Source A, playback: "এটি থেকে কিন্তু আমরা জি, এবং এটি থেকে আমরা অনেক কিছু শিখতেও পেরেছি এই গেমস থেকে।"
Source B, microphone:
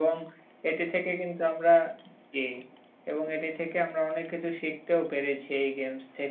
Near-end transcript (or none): none